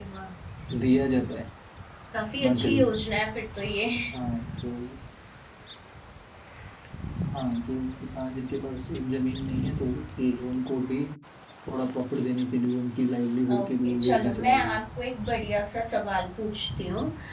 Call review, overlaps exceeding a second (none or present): present